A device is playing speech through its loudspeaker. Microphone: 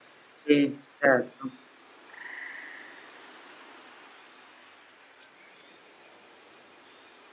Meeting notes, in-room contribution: present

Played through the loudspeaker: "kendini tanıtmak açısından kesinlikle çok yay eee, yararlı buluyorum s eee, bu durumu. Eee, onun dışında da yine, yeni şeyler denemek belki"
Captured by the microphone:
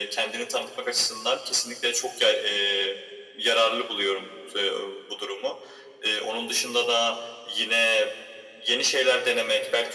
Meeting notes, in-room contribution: none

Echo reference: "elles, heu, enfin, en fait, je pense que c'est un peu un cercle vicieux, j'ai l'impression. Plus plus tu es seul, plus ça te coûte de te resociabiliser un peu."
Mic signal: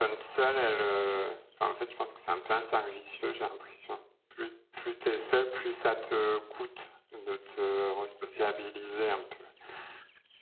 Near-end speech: none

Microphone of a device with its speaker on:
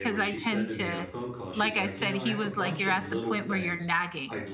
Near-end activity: present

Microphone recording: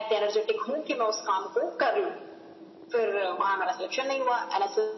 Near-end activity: none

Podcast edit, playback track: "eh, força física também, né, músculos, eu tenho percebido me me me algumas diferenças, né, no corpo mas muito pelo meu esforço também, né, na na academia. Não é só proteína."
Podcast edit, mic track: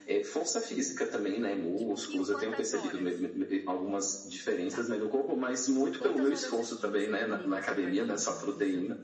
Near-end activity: present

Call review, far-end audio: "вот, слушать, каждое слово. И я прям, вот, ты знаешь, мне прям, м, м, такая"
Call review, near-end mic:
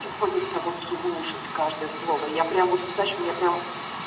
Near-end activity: none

